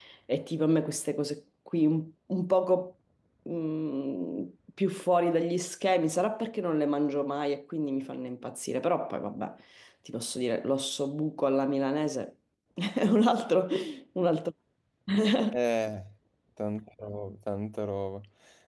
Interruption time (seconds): none

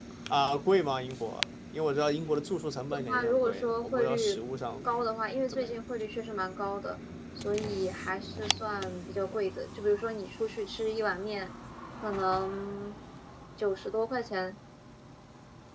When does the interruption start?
3 s

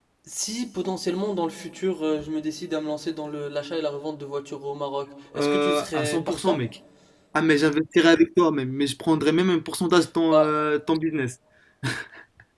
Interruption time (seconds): 5 s

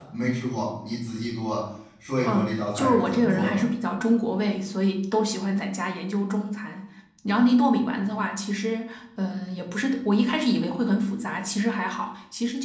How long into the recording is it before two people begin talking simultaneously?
2 s

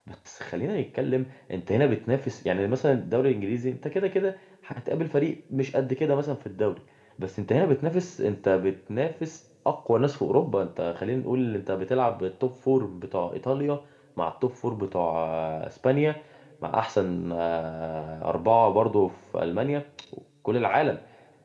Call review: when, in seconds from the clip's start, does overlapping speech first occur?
none

